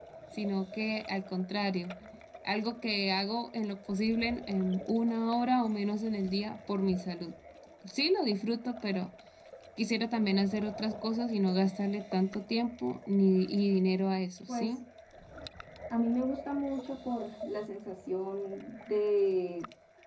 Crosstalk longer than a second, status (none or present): none